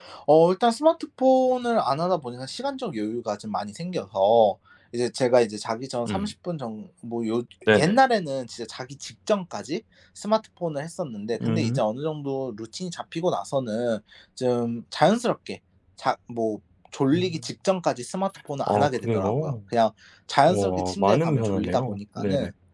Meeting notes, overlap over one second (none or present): present